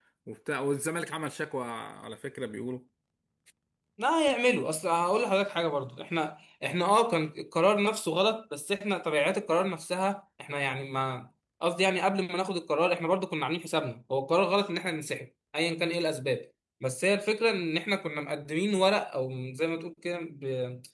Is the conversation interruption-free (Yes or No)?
Yes